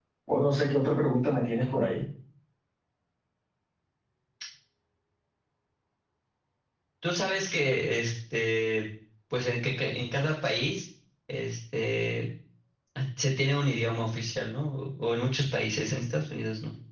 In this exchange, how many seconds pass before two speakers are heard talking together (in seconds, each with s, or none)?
none